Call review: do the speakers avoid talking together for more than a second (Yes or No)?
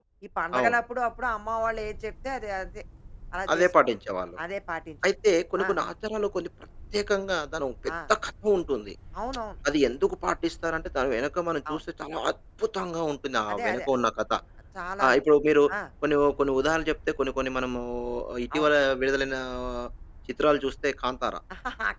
Yes